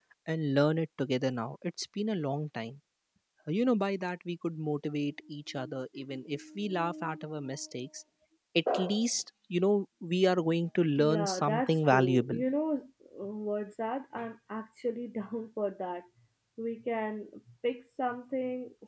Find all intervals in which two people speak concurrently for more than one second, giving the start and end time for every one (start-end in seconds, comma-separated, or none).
11.0-12.4